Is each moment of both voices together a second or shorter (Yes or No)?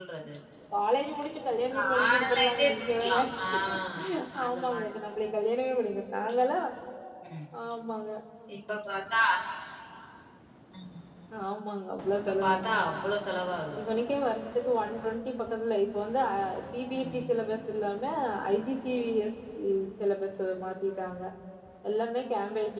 No